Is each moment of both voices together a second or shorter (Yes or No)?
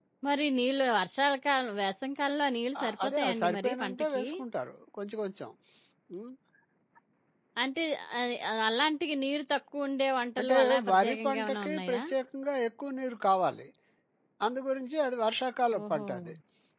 No